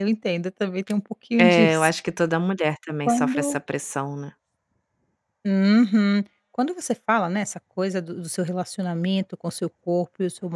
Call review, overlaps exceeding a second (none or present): none